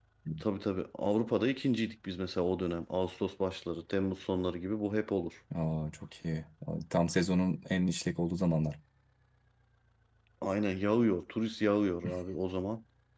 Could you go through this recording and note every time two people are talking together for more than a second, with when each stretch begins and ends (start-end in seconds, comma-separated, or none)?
none